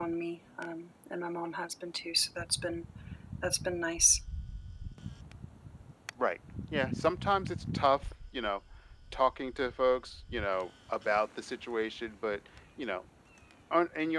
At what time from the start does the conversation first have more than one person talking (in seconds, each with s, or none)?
none